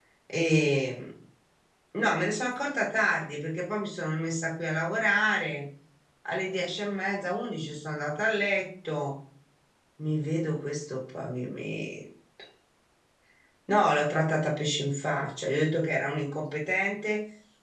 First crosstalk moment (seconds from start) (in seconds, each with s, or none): none